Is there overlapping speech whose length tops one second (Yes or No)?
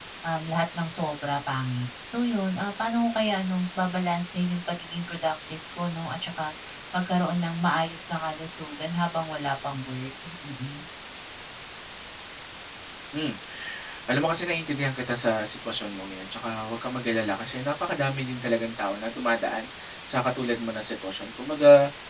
No